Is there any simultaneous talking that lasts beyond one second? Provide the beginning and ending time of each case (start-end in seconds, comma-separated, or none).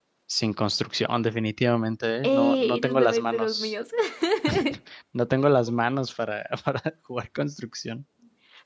2.2-3.7